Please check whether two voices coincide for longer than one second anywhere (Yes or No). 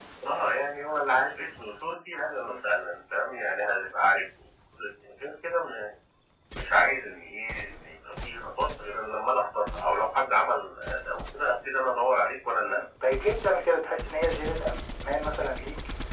No